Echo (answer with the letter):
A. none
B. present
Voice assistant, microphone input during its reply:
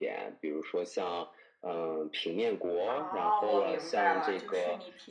B